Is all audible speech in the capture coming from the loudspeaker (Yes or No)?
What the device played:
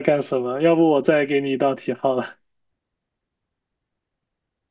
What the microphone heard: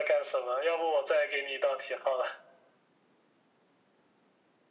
Yes